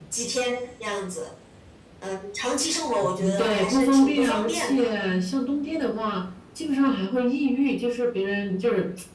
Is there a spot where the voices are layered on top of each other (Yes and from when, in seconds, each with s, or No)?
Yes, from 3.2 s